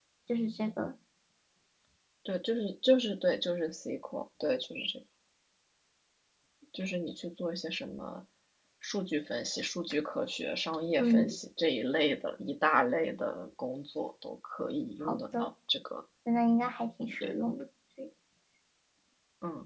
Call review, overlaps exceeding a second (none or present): none